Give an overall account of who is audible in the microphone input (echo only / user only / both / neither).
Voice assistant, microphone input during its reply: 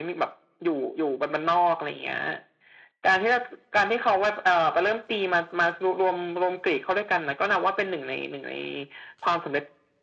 echo only